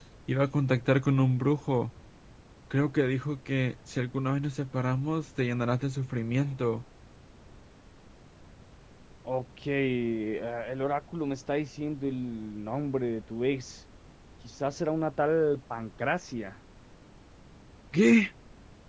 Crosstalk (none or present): none